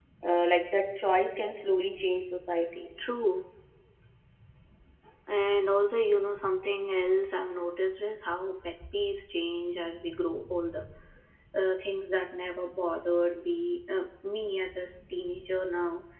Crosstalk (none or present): none